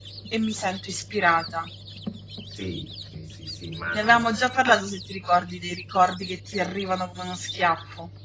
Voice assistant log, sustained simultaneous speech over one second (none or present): none